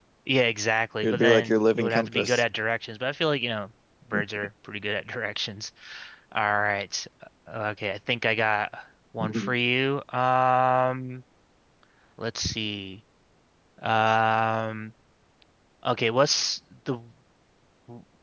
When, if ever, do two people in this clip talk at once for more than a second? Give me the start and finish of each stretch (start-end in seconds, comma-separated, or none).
1.0-2.4